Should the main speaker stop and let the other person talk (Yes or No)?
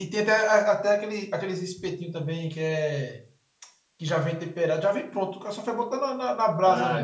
Yes